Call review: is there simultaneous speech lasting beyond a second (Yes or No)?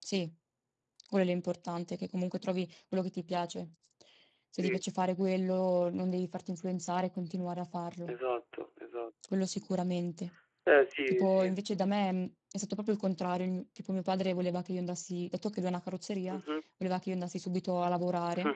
No